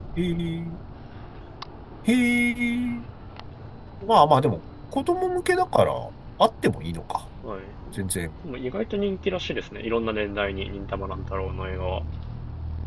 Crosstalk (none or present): none